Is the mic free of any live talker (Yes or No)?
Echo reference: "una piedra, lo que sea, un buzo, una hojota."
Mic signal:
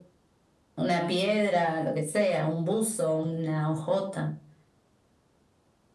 Yes